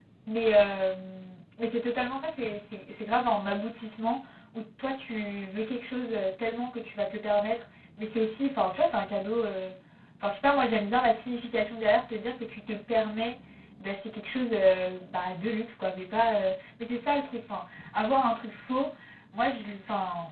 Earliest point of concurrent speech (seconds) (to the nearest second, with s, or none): none